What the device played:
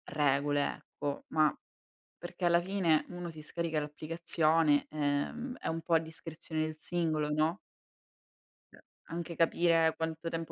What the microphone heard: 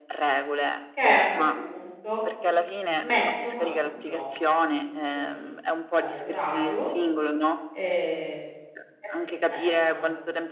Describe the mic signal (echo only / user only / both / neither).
both